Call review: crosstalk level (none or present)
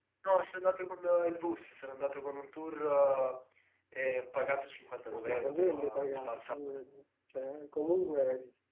present